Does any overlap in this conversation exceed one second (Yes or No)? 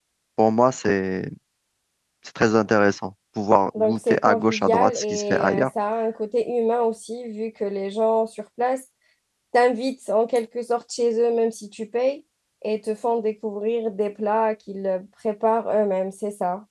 Yes